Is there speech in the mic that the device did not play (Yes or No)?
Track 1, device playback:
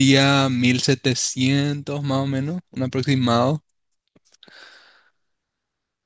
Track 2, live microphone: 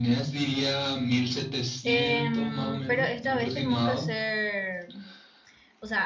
Yes